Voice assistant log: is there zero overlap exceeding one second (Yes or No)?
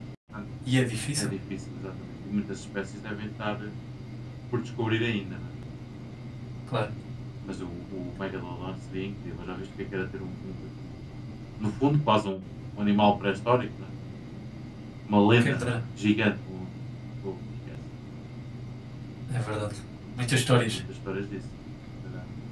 Yes